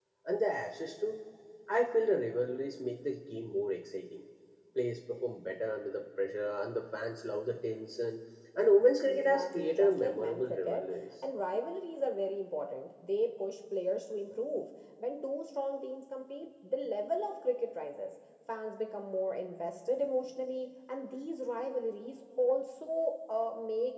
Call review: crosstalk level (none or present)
present